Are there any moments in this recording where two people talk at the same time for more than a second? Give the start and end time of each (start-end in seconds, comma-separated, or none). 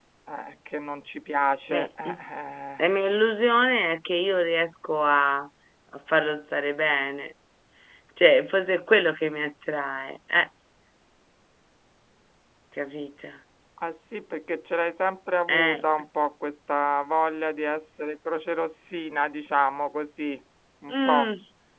none